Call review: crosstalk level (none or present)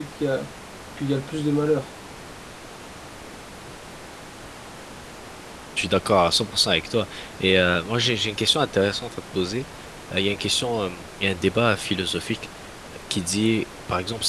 none